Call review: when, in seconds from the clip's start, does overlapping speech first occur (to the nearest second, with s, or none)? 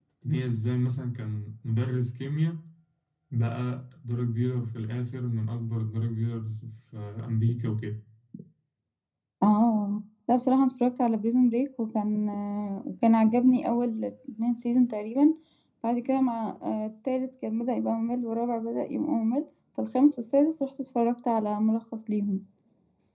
none